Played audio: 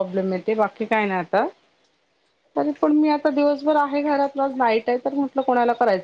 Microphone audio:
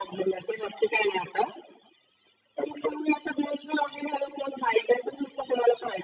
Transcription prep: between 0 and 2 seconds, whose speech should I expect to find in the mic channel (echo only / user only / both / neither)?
echo only